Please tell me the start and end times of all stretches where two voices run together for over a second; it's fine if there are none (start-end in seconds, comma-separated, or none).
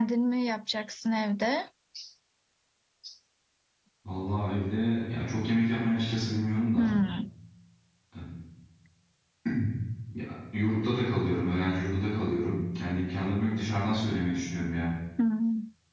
none